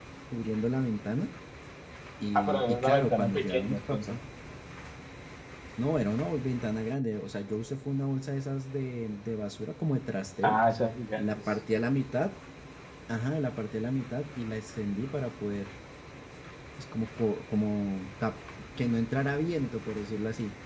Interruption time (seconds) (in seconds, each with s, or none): 2.3 s